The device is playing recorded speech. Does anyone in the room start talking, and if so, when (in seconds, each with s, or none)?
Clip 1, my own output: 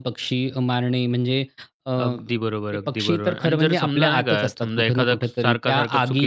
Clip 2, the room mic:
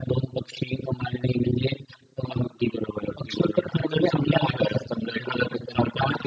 none